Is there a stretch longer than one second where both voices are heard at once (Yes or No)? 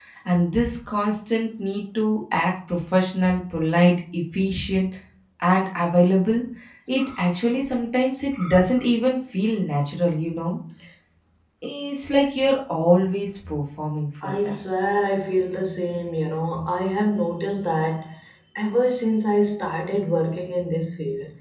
No